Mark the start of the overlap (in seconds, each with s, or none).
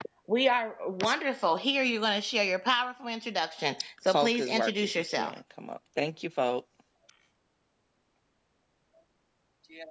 4.1 s